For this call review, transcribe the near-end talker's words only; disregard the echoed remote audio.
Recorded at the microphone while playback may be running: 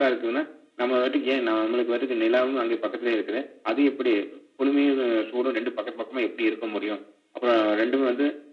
none

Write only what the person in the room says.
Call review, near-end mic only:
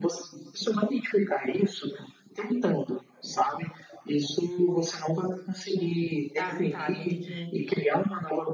"Ah, tá, vou ter que

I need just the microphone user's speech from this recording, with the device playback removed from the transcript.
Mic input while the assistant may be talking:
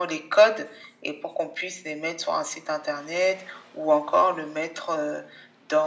none

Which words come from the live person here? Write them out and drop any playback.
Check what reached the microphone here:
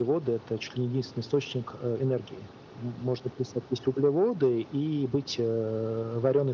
none

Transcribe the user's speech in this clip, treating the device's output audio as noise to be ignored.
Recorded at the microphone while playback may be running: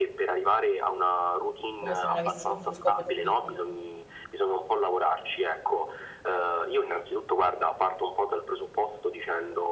come se non avessimo uno scopo di vita.

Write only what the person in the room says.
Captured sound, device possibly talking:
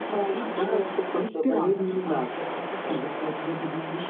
none

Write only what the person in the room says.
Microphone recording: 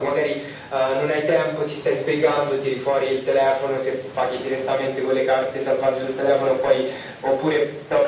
none

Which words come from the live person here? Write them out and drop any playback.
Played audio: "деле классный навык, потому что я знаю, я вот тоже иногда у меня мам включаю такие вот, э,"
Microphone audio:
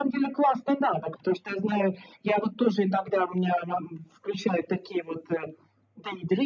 none

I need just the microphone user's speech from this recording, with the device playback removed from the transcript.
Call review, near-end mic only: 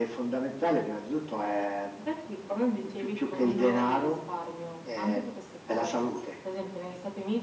none

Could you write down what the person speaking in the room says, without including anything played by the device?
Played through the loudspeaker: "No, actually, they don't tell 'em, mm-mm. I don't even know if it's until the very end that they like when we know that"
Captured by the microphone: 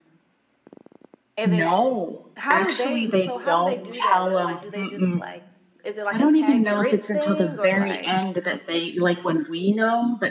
and then, how do they so how do they do that? They're, like do they just, like is it like a "tag, you're it," thing or like

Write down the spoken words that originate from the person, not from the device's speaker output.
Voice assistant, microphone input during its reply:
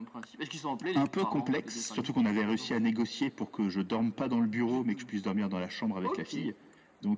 none

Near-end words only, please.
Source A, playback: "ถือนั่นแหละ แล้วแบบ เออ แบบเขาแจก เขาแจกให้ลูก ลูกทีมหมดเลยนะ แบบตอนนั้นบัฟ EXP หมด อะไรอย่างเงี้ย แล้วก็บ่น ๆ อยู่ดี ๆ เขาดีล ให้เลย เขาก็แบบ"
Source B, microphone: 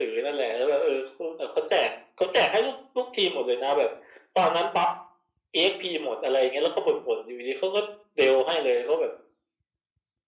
none

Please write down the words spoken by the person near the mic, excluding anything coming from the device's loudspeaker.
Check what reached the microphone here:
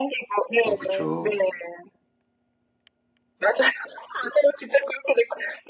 어 그쵸.

